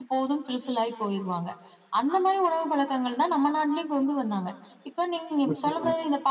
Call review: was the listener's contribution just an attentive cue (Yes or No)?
Yes